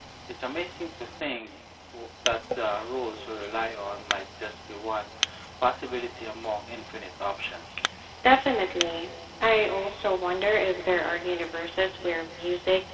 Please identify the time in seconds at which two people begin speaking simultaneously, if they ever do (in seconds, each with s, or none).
none